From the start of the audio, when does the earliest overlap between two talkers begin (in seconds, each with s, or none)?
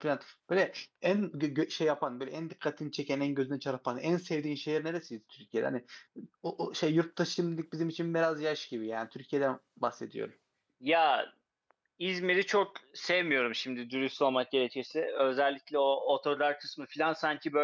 none